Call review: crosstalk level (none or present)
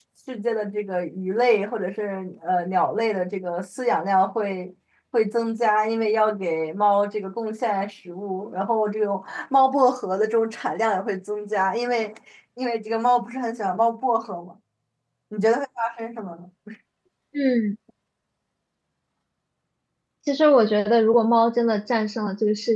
none